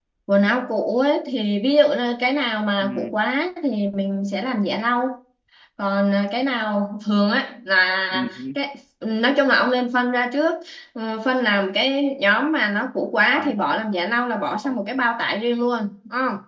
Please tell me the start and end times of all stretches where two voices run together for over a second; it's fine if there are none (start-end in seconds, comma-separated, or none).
none